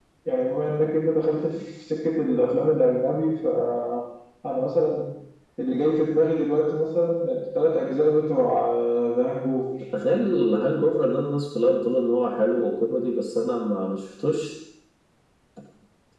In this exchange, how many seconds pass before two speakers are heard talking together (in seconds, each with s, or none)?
none